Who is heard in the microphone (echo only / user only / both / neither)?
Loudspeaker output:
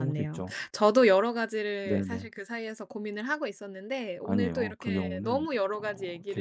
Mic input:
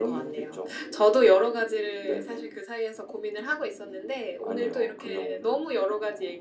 echo only